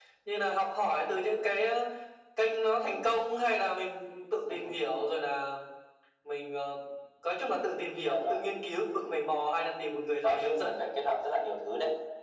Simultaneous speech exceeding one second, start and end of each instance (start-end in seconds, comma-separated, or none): none